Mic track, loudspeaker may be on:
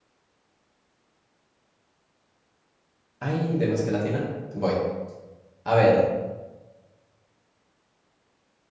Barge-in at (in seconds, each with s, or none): 3.2 s